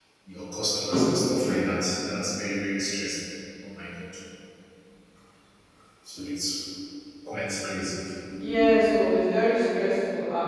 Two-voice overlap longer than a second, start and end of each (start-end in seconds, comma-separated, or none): none